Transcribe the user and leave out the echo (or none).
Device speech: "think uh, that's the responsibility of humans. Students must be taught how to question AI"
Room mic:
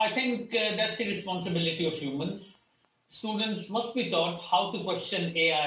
none